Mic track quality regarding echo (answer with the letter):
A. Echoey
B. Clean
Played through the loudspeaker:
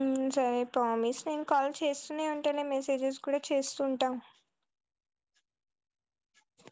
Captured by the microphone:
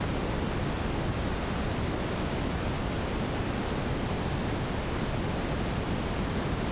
B